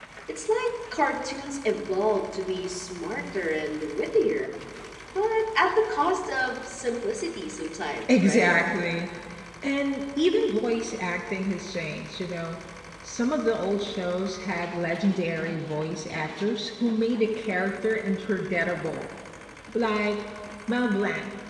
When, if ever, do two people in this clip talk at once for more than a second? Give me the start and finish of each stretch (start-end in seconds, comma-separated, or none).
none